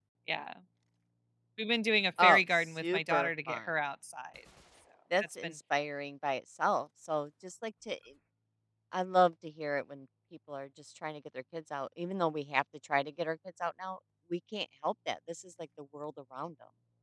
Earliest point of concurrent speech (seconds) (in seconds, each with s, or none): 2.2 s